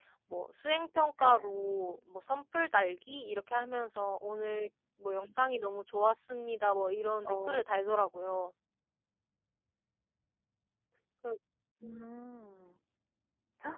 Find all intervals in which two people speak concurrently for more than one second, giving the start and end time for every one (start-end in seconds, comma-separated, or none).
none